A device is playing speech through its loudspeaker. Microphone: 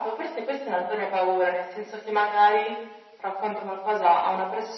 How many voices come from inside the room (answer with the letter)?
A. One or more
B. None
B